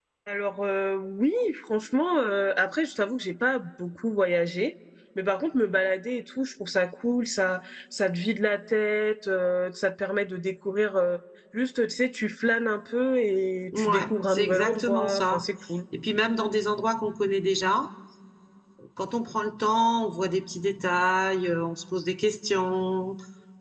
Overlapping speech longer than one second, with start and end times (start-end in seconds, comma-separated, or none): 13.7-15.5